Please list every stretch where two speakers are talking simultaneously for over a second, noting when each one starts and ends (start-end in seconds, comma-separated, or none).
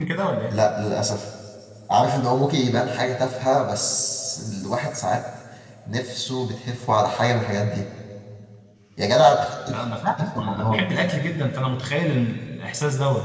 9.7-10.9